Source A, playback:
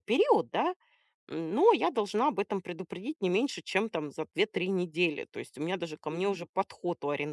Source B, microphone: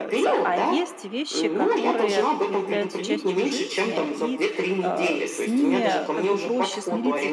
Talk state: both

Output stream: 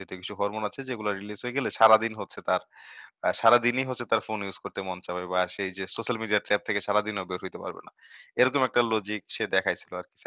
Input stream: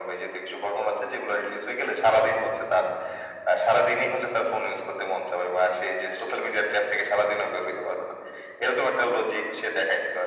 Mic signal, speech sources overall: echo only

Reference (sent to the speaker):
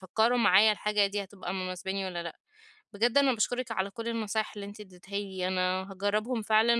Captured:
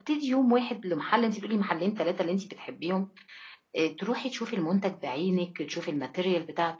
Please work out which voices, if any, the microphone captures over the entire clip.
user only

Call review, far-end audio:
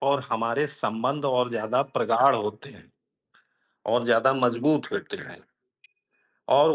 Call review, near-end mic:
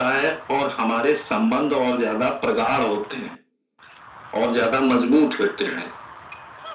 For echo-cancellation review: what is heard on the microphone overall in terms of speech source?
echo only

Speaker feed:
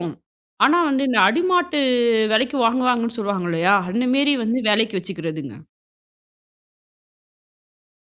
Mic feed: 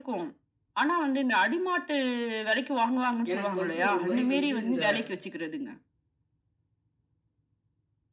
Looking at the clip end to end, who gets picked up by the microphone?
both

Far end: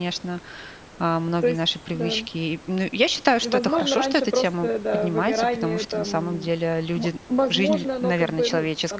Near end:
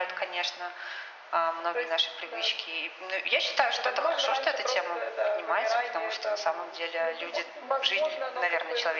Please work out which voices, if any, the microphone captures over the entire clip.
both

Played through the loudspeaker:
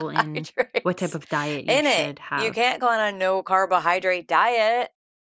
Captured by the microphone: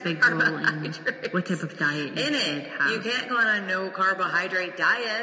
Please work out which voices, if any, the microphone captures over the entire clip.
echo only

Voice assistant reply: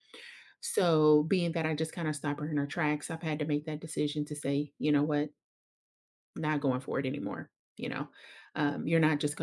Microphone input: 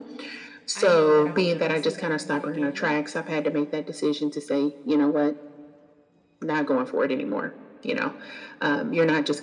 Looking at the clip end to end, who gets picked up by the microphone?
both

